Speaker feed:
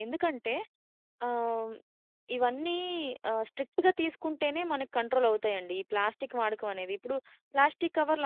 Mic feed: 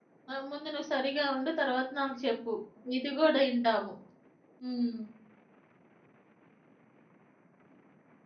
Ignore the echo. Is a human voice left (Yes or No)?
Yes